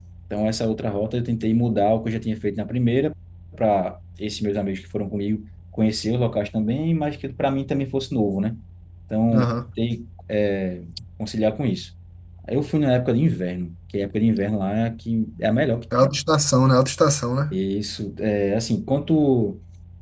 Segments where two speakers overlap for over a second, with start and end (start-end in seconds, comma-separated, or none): none